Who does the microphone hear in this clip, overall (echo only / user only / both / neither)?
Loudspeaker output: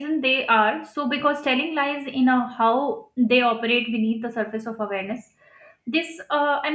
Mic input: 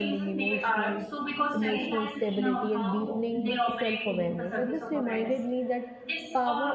both